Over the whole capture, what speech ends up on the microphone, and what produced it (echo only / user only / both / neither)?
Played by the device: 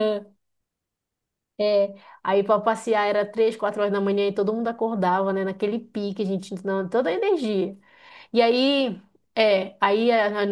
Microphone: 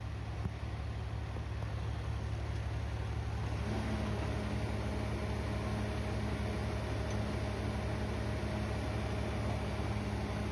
neither